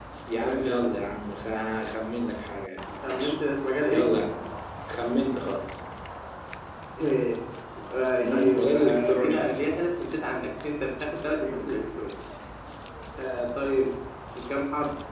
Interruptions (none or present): present